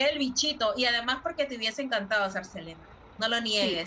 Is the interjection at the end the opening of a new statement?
Yes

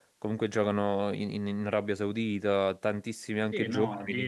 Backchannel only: No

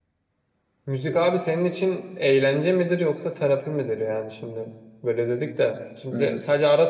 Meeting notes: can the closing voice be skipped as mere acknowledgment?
Yes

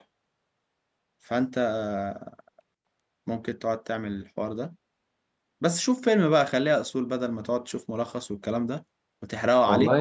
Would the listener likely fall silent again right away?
No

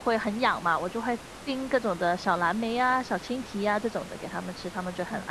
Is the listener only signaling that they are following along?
No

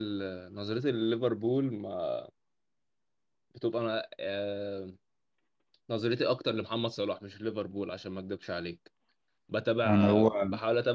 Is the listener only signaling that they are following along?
Yes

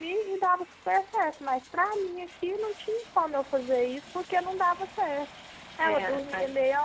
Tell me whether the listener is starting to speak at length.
No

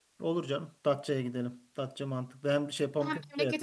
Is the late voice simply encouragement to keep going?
No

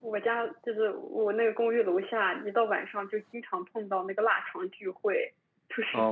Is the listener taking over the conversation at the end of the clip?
Yes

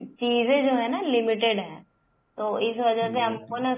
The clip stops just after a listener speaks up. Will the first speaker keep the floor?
Yes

